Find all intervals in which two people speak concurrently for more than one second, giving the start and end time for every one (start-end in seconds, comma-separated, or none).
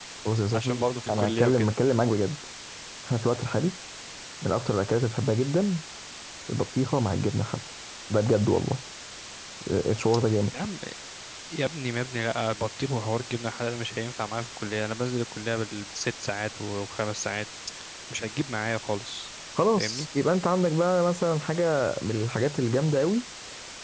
0.5-1.7